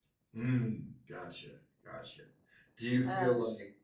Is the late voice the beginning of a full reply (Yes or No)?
No